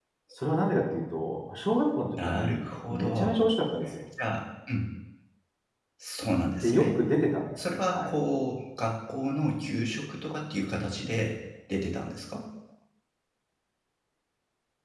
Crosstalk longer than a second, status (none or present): present